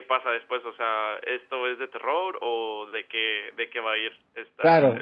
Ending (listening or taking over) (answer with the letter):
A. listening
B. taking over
B